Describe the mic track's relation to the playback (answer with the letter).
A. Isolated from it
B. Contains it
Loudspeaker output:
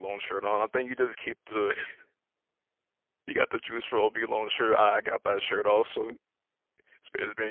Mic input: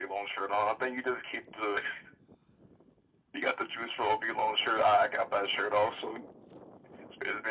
B